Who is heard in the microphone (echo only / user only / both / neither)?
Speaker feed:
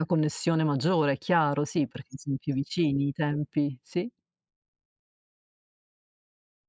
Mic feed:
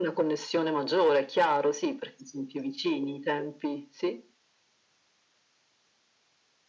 echo only